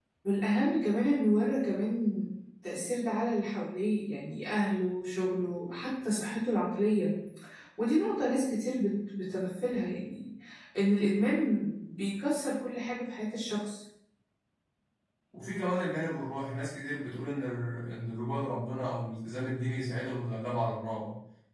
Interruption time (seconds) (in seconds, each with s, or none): none